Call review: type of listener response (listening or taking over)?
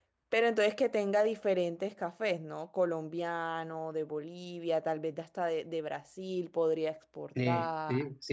taking over